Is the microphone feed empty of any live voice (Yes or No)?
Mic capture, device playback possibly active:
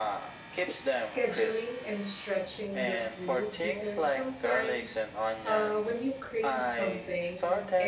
No